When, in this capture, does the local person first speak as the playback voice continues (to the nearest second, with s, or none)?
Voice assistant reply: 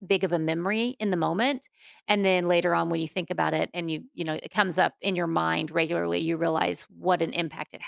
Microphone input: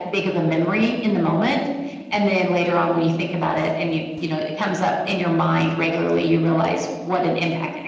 none